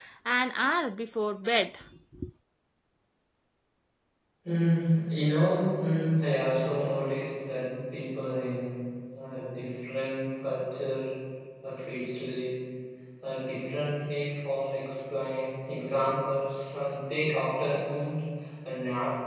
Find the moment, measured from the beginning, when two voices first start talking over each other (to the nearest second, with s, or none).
none